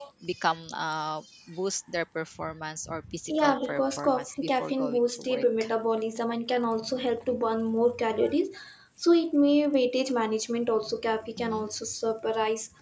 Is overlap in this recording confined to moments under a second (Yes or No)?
No